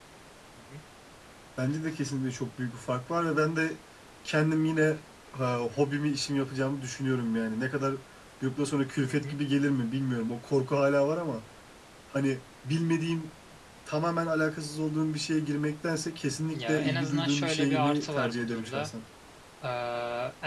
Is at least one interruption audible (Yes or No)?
Yes